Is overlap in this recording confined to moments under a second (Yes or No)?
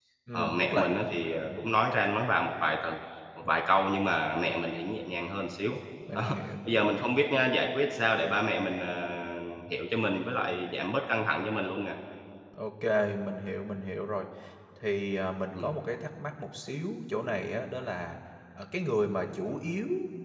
No